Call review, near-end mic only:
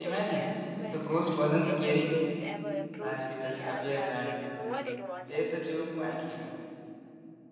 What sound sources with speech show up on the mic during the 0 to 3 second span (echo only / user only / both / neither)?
both